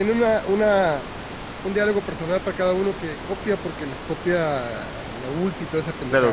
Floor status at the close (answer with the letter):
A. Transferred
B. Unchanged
A